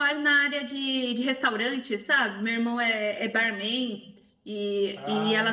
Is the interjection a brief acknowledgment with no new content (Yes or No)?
Yes